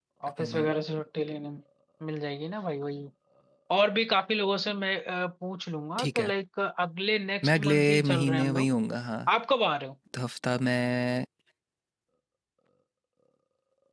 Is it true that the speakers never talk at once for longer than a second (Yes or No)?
No